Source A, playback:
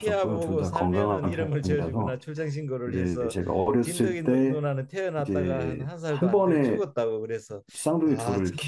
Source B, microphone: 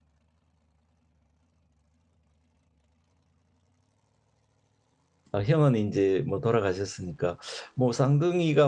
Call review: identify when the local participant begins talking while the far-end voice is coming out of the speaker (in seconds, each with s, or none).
5.3 s